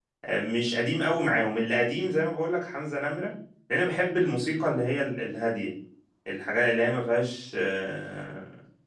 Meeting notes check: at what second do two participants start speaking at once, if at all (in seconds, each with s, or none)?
none